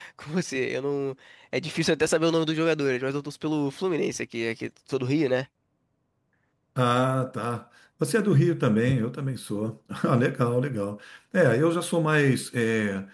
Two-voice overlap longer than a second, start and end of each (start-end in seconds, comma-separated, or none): none